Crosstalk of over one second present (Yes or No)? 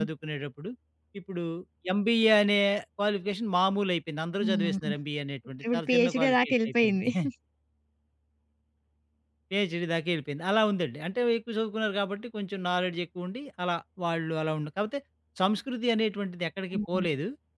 Yes